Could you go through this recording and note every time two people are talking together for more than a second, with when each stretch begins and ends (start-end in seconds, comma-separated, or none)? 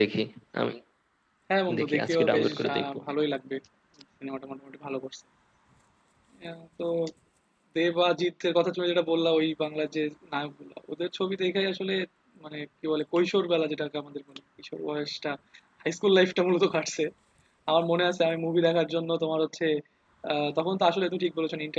1.8-3.0